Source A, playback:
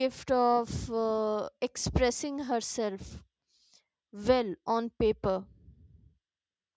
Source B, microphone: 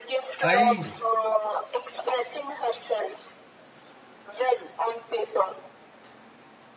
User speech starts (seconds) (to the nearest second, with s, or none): 0 s